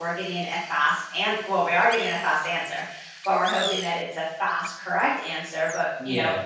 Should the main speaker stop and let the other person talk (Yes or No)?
No